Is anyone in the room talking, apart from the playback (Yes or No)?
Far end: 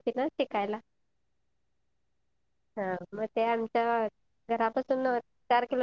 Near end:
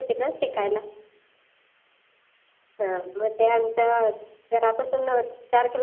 No